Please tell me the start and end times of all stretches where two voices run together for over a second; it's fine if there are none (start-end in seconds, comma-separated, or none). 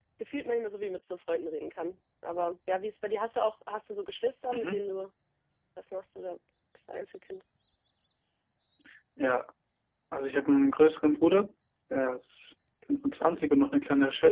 none